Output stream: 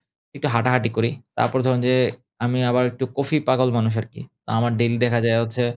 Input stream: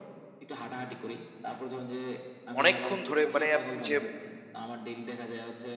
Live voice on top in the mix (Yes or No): Yes